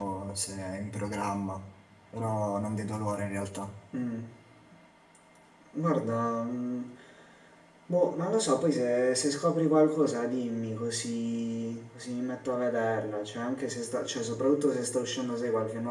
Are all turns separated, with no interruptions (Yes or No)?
Yes